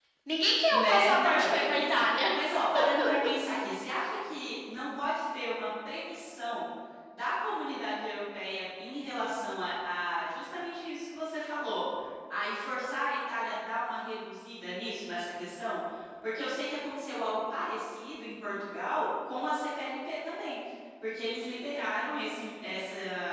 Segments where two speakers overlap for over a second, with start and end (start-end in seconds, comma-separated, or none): 0.7-2.3